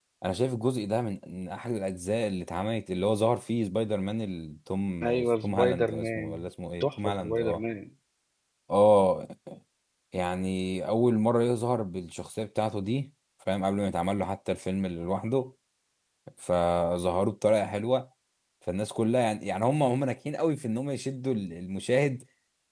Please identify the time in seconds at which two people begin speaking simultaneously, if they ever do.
5.0 s

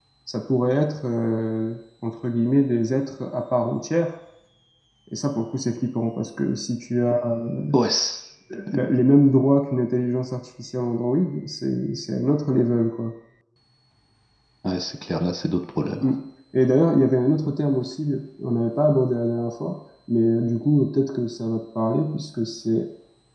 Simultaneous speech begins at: none

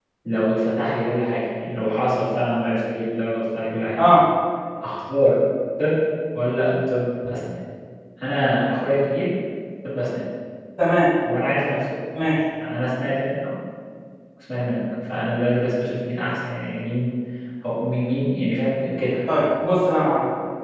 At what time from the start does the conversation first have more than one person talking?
none

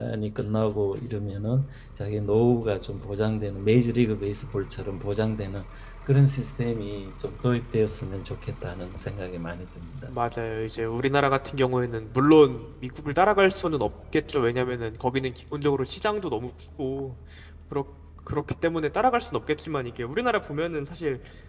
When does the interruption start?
none

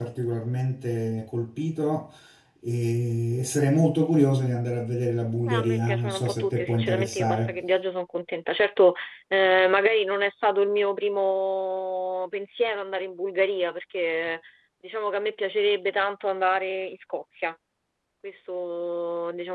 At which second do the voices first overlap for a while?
5.5 s

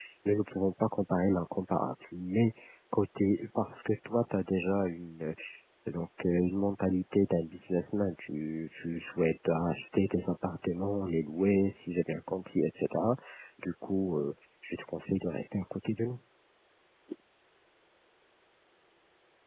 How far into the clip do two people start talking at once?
none

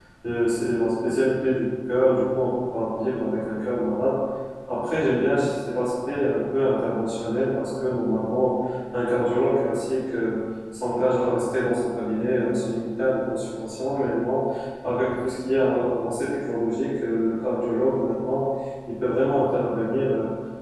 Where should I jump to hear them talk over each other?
none

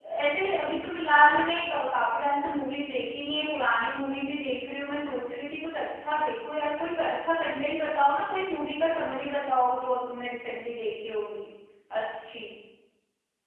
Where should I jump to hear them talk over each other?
none

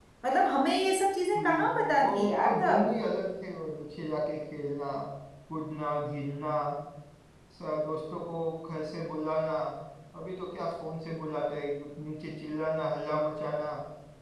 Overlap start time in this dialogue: 1.4 s

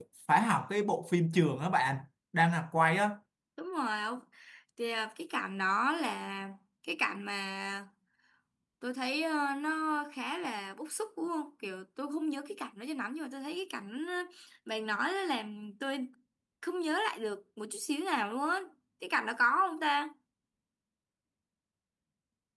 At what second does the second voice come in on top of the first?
none

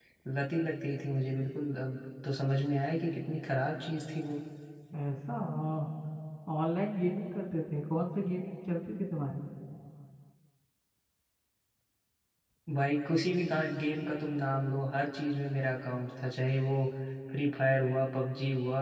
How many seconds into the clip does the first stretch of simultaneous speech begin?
none

